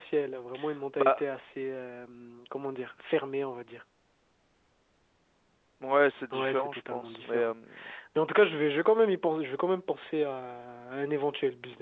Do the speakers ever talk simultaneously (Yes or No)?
Yes